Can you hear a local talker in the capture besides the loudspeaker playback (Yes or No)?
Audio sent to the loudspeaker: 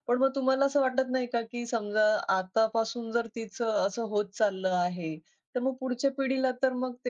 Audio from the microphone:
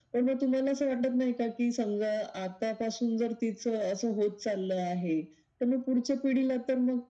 No